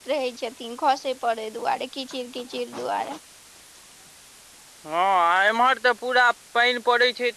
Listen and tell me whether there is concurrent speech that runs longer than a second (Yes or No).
No